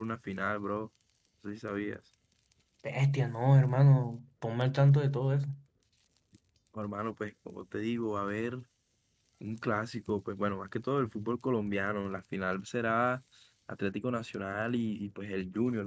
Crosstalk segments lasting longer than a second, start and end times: none

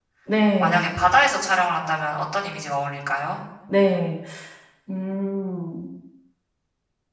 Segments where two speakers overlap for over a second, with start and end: none

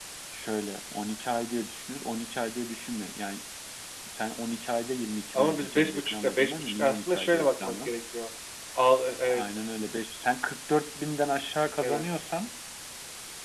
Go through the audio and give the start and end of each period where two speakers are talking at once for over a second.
5.3-7.9

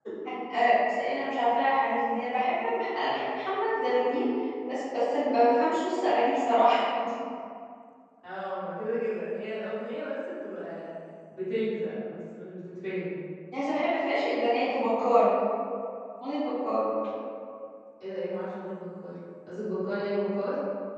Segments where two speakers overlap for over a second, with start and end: none

